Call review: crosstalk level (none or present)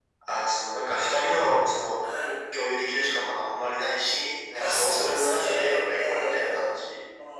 present